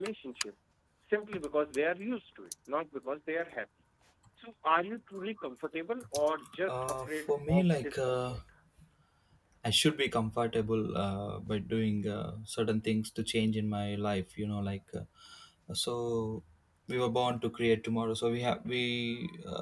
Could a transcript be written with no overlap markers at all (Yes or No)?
No